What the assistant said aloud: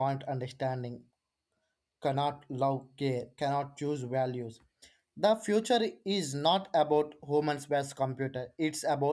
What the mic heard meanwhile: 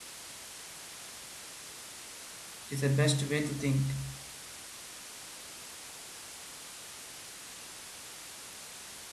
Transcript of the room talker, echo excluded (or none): It is the best way to think.